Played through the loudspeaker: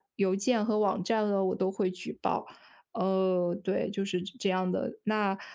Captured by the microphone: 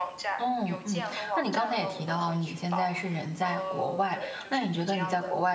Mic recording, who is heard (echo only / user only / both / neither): both